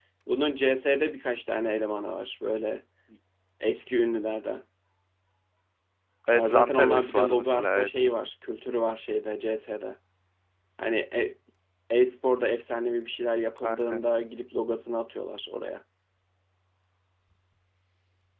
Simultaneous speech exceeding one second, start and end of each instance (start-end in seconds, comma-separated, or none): 6.3-7.9